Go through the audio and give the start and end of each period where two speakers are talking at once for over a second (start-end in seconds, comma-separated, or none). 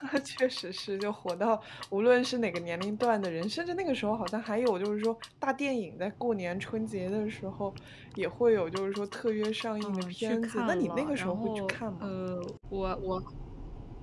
9.8-12.1